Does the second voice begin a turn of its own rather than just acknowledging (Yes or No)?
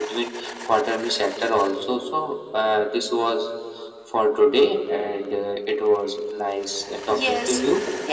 Yes